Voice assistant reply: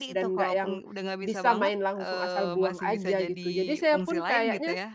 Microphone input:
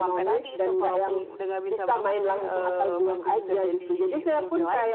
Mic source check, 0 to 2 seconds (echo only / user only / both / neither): echo only